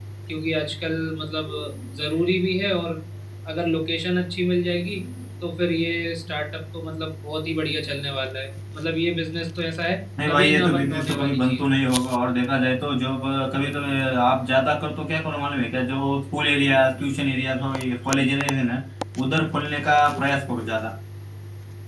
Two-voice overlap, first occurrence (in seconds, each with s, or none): 10.2 s